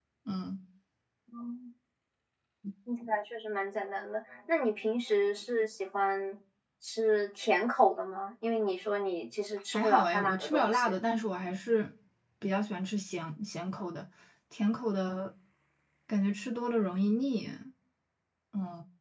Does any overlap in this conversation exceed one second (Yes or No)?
Yes